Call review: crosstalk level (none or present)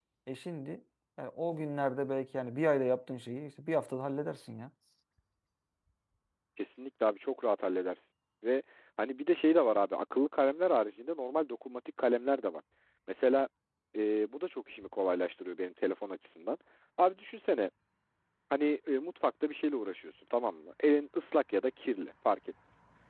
none